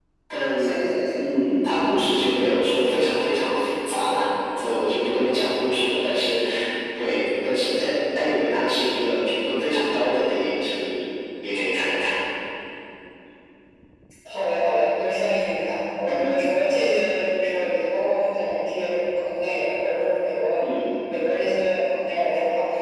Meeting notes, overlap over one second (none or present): none